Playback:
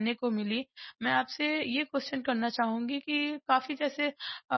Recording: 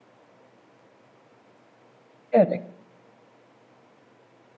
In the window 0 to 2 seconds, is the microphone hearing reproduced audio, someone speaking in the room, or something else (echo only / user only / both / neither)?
neither